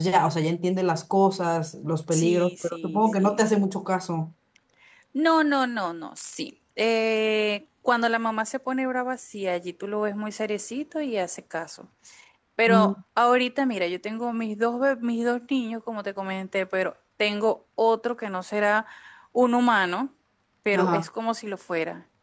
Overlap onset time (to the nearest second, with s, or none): 2 s